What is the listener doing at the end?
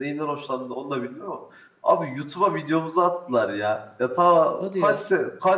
listening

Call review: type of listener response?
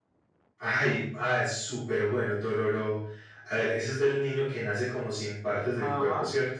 taking over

